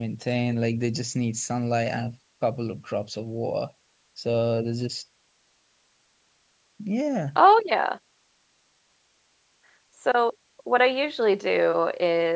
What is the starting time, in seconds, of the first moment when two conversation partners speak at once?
none

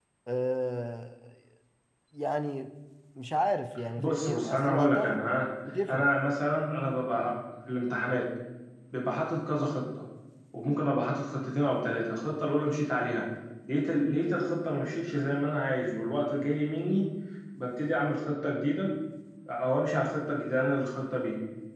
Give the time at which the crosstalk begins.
4.0 s

